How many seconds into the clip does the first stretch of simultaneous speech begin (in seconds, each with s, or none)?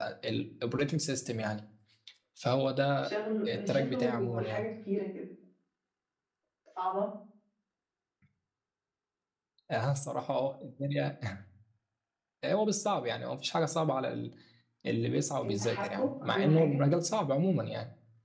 3.5 s